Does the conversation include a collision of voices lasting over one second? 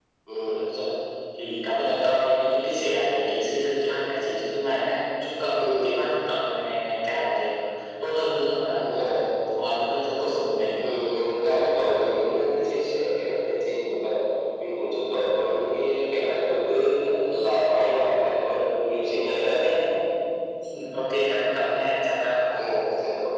No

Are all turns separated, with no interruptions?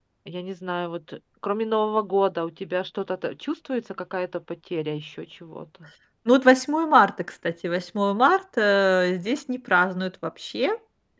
Yes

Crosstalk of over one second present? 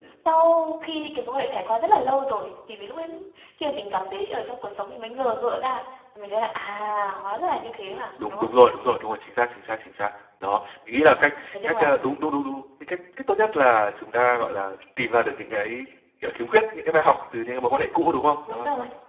No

